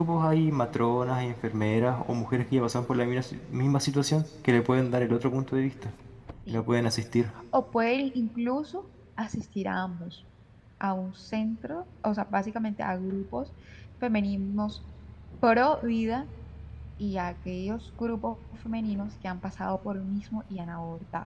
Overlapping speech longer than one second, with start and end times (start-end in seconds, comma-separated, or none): none